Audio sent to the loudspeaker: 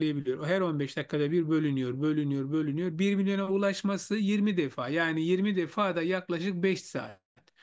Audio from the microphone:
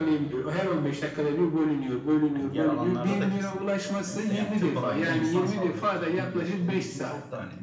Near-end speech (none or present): present